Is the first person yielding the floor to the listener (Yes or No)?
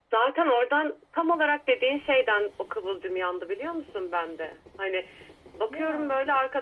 No